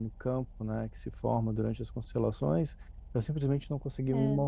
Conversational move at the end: listening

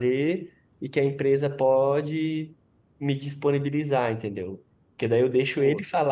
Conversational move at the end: listening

